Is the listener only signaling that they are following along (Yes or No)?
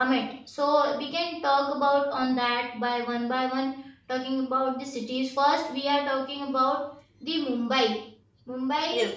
Yes